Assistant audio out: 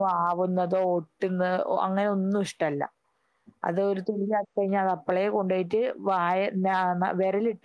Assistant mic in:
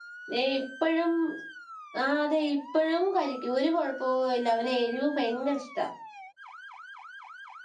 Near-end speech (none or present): present